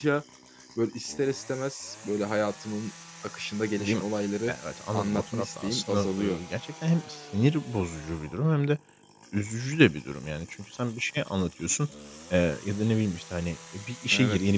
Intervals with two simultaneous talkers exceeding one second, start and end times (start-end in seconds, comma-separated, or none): 4.9-6.4